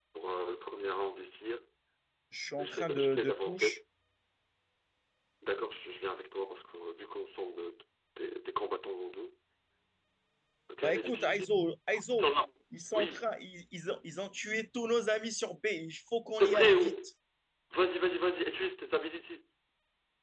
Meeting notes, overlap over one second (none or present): present